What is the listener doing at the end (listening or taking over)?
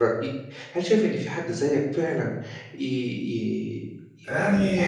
listening